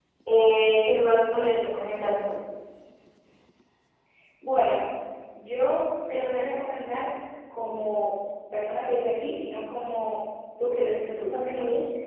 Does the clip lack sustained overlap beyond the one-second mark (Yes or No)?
Yes